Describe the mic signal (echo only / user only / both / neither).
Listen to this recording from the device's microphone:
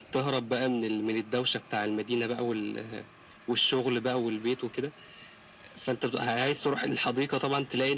echo only